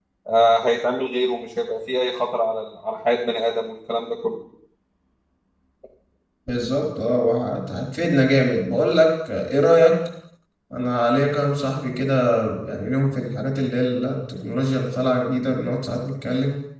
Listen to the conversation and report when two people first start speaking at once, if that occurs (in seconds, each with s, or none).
none